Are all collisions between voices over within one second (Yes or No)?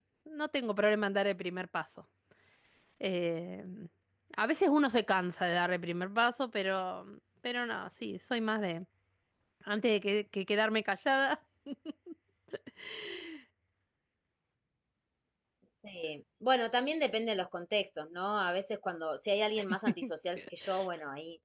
Yes